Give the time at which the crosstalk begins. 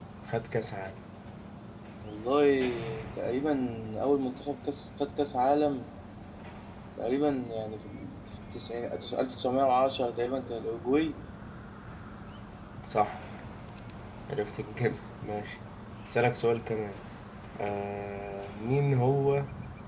none

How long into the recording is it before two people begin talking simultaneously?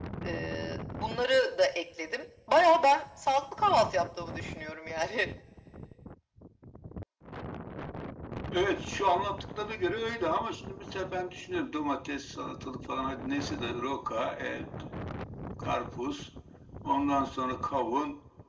none

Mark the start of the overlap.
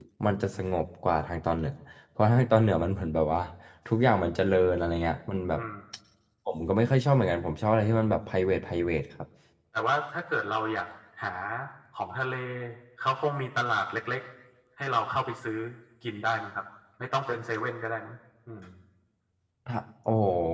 none

